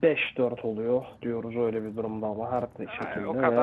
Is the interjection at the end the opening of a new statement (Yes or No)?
Yes